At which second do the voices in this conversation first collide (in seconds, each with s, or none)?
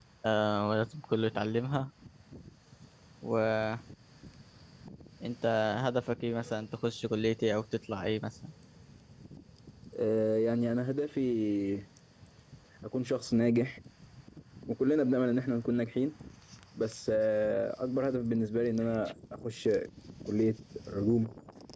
none